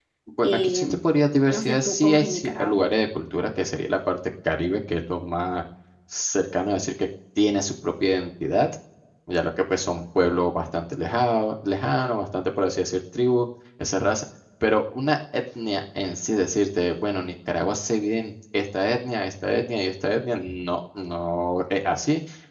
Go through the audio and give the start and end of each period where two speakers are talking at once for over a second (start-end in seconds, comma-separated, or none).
1.5-2.8